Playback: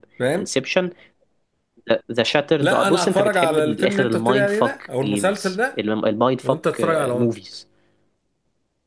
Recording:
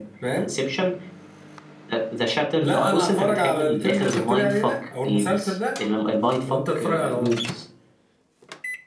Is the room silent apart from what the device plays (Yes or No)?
Yes